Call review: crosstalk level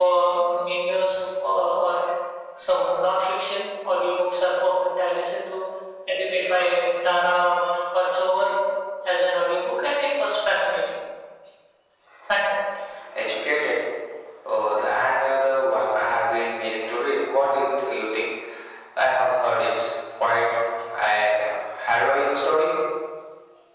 none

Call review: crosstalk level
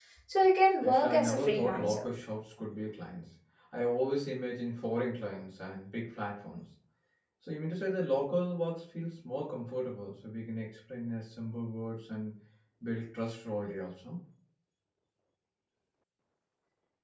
present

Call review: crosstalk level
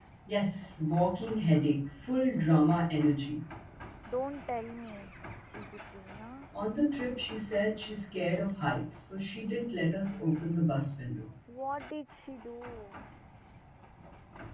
none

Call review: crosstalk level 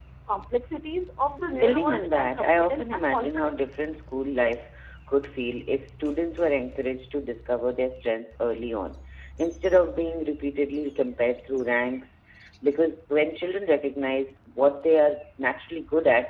present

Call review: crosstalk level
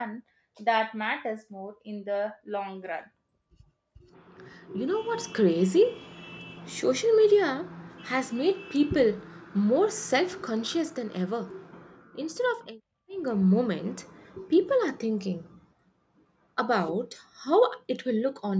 none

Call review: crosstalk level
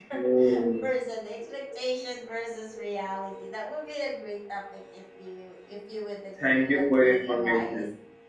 present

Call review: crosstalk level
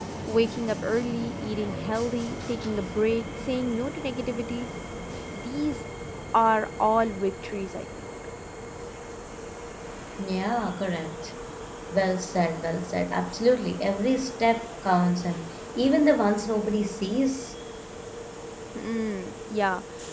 none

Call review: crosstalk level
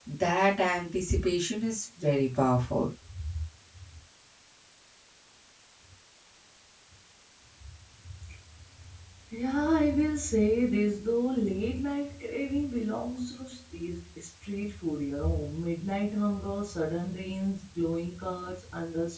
none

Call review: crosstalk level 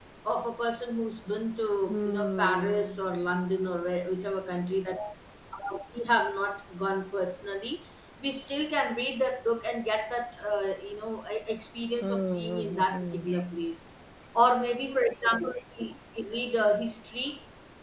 present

